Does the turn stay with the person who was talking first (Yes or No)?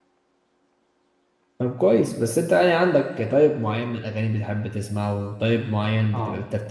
Yes